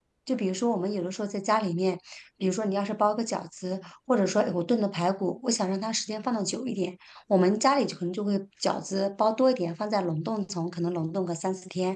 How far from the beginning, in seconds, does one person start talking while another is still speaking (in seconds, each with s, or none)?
none